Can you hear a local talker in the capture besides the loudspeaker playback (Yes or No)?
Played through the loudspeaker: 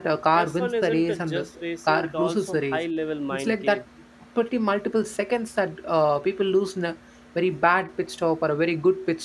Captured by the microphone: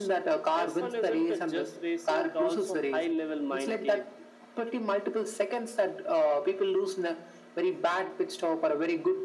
No